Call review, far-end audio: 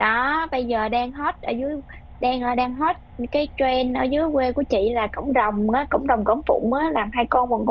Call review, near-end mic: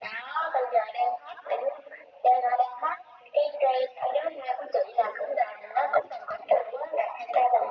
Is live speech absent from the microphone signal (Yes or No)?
Yes